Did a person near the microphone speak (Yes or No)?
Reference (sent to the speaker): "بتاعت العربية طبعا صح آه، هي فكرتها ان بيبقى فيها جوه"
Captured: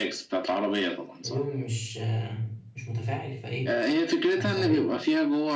Yes